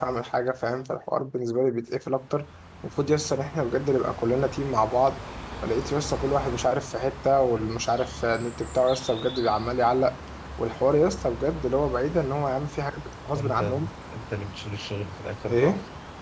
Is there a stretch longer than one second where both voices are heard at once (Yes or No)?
No